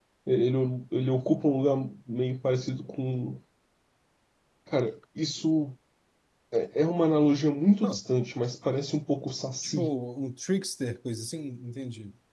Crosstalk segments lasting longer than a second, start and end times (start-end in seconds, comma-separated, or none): none